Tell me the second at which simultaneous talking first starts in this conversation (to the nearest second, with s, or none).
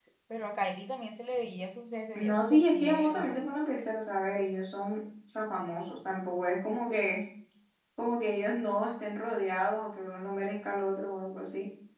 2 s